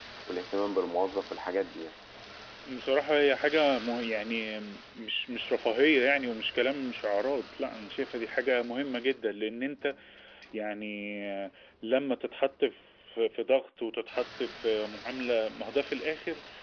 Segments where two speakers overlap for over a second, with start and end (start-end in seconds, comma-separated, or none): none